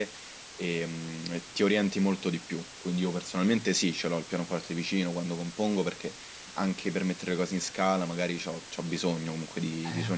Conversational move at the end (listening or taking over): taking over